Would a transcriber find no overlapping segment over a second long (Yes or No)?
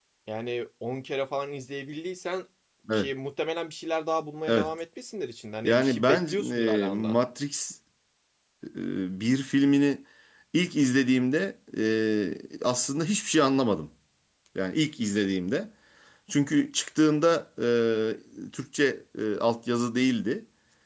No